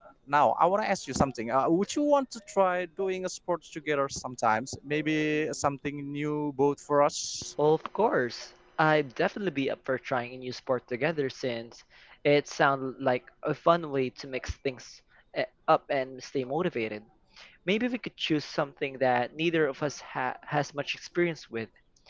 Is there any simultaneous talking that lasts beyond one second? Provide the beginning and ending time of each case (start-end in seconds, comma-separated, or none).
none